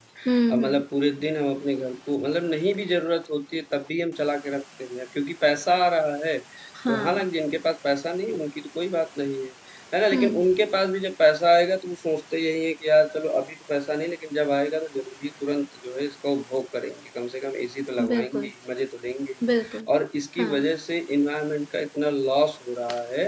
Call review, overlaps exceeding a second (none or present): none